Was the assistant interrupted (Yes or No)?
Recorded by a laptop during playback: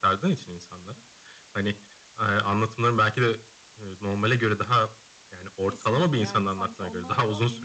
Yes